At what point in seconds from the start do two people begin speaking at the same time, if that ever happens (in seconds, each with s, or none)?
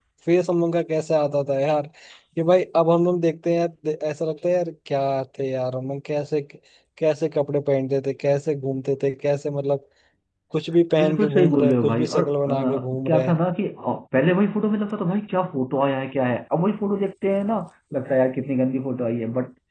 11.0 s